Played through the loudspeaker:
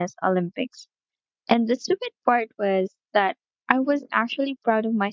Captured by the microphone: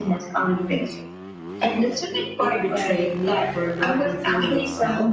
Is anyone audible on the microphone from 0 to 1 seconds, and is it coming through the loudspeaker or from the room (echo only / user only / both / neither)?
echo only